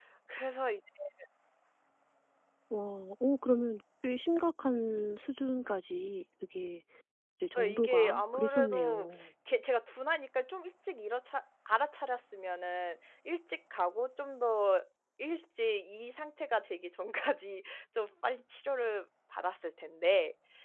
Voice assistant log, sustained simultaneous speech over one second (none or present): present